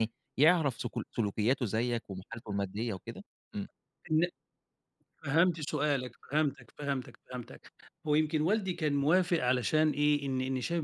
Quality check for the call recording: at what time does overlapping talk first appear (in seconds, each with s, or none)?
none